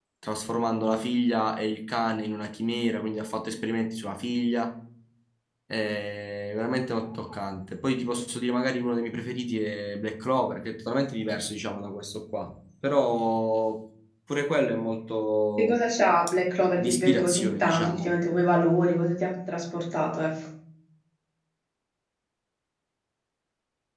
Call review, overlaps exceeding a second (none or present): present